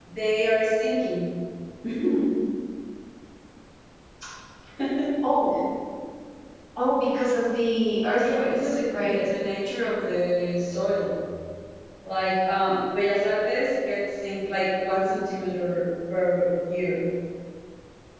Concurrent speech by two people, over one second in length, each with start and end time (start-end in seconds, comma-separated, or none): 8.0-9.2